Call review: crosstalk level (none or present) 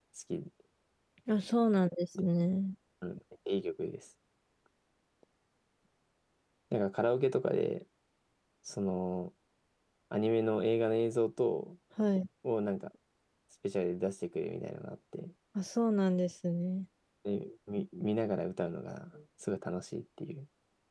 none